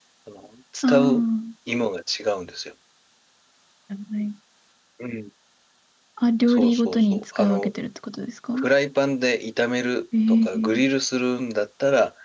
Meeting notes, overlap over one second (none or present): present